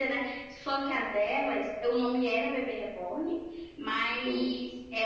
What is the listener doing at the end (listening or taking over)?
listening